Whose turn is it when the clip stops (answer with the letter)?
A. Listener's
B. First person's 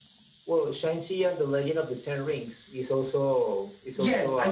A